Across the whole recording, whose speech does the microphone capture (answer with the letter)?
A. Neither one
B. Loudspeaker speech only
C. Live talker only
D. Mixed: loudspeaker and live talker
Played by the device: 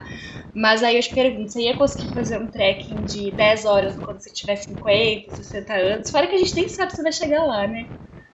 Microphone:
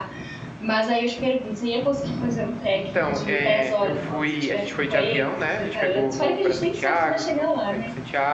D